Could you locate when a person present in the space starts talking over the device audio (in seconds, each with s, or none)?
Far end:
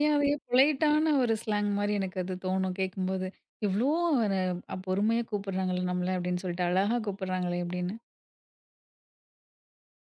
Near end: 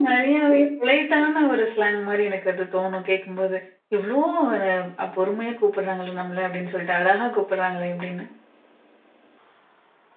none